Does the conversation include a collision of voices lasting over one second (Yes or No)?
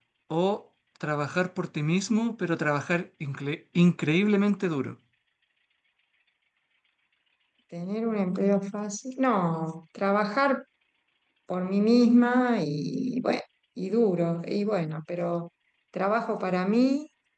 No